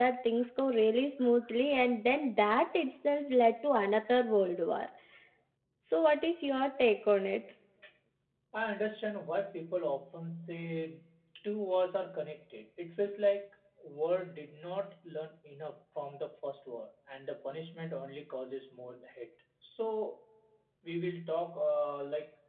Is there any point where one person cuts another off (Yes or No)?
No